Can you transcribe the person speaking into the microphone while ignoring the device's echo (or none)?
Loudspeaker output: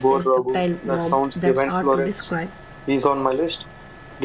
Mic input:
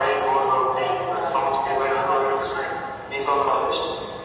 none